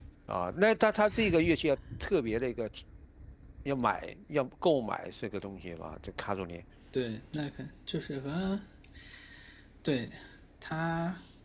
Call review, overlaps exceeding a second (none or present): none